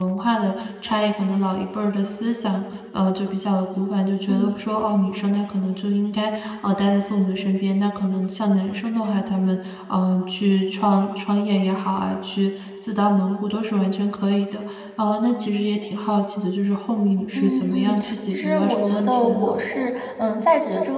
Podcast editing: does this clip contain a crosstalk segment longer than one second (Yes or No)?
Yes